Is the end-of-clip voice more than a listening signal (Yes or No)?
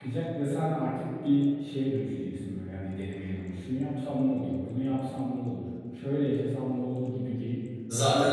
No